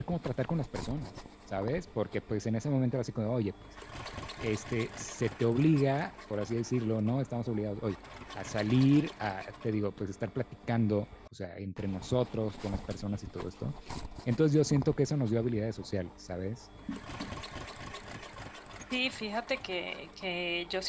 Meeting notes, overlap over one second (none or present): none